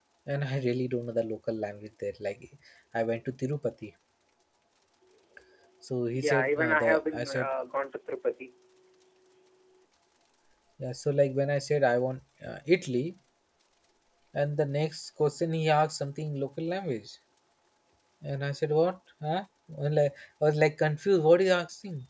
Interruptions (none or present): present